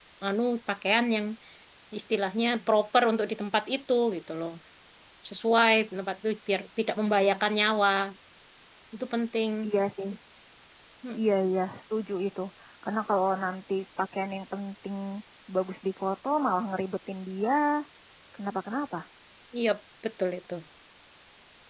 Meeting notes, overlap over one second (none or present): none